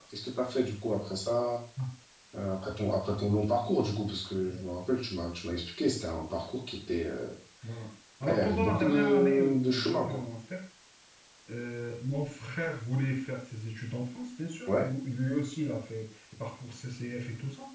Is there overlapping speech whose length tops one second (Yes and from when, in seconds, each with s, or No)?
Yes, from 8.2 s